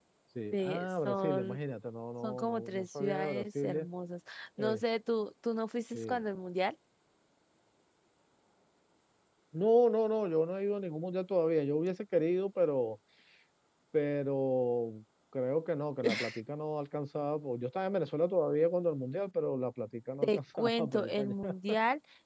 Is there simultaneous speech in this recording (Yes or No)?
Yes